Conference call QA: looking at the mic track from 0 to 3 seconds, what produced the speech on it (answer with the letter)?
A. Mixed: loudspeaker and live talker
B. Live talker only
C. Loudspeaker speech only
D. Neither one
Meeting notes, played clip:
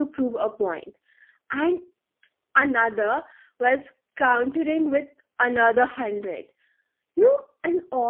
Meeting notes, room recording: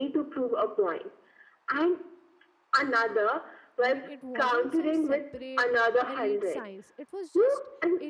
C